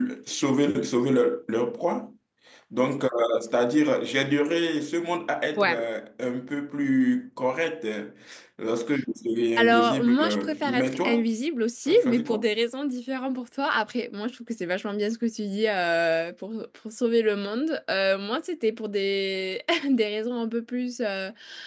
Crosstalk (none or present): present